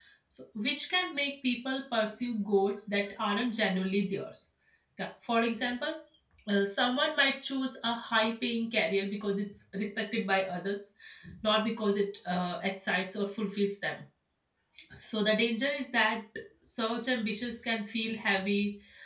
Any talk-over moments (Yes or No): No